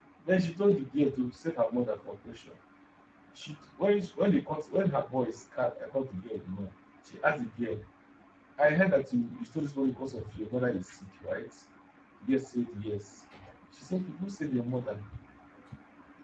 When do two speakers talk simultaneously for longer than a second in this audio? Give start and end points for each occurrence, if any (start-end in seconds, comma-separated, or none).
none